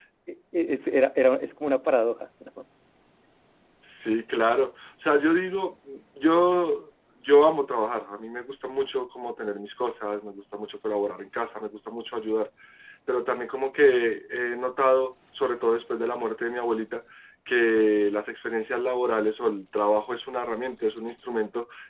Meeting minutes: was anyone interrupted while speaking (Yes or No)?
No